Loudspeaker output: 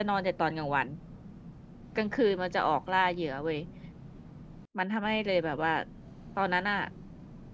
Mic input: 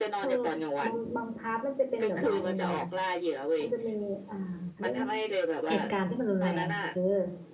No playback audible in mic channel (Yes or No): No